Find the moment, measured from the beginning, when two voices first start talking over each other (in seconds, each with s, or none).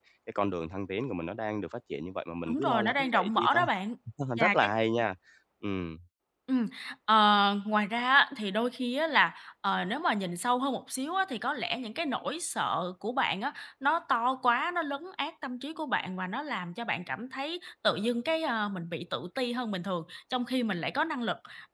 2.5 s